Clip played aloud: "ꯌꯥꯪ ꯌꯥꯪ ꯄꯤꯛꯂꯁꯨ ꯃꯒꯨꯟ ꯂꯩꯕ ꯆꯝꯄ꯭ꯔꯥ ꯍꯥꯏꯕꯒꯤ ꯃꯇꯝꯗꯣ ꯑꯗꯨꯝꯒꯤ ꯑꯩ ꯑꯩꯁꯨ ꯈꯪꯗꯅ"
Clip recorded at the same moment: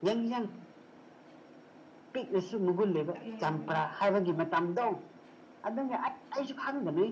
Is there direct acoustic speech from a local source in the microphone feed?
Yes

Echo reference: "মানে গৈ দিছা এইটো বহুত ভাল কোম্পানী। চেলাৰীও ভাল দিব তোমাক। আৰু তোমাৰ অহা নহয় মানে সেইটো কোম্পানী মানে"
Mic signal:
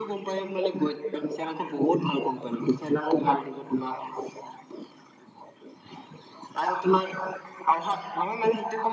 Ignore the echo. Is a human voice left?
No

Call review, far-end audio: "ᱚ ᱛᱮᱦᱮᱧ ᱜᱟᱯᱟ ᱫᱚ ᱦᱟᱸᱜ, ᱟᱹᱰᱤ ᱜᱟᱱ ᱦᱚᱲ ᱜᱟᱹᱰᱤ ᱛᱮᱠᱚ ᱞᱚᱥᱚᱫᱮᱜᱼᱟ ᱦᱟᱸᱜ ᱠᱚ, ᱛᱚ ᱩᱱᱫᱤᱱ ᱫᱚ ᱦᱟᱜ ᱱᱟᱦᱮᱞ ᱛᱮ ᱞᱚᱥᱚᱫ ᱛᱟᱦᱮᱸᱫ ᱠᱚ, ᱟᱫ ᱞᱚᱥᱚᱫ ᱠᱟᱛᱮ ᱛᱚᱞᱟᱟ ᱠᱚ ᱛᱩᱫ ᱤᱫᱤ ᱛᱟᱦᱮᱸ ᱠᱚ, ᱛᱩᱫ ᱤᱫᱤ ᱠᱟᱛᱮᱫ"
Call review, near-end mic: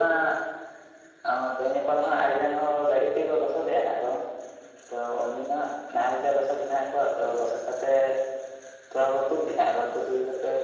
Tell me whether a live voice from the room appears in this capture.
No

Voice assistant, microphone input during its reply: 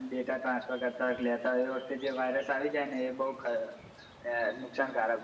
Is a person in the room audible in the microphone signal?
No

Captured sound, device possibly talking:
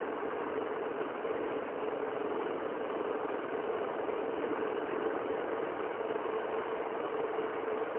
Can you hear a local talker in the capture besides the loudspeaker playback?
No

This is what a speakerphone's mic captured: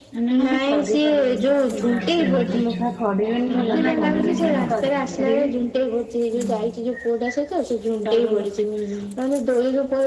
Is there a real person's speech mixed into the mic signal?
Yes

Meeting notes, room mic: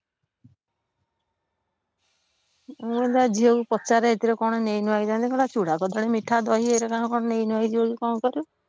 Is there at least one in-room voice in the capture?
Yes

